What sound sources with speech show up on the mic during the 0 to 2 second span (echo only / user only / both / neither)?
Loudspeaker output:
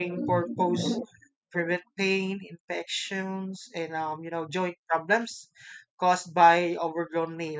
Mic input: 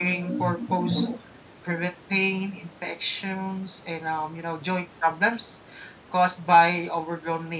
echo only